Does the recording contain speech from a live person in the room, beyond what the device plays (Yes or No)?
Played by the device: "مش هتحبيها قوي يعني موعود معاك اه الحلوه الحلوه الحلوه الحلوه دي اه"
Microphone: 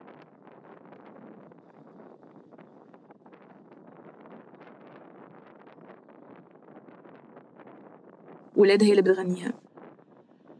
Yes